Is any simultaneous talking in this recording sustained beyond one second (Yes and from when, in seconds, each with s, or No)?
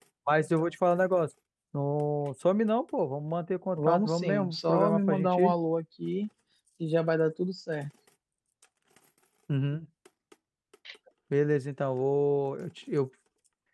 Yes, from 3.8 s